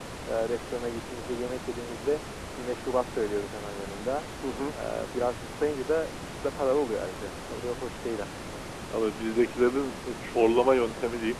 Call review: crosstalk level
none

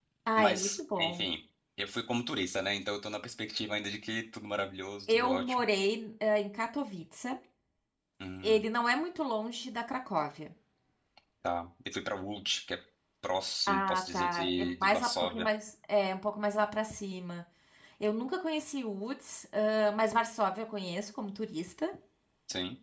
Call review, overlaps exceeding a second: present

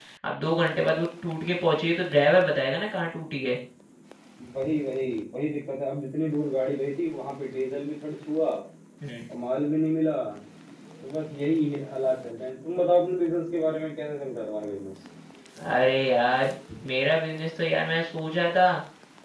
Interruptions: none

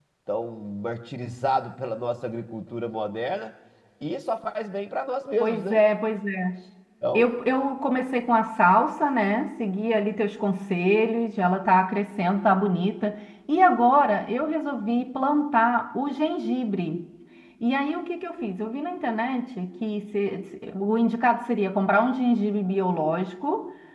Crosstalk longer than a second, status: none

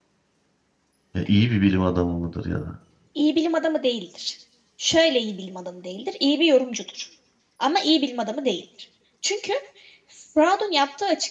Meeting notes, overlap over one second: none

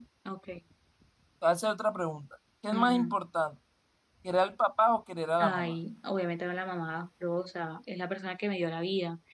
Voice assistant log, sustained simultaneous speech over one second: none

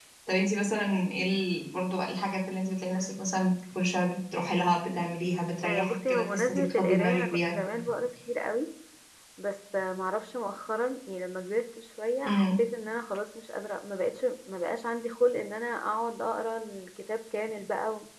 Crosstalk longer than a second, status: present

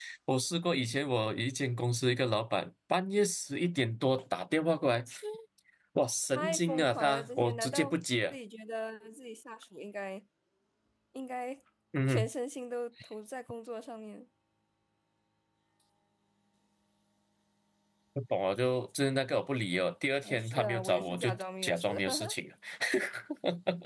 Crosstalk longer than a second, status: present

